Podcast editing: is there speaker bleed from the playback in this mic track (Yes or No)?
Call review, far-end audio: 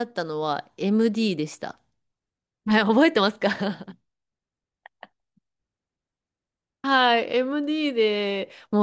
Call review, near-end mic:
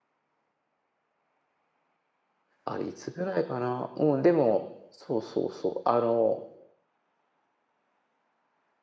No